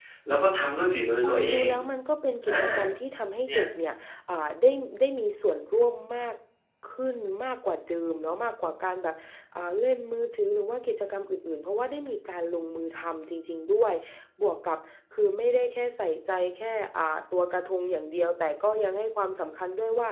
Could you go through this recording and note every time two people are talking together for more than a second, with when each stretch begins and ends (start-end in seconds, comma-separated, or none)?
none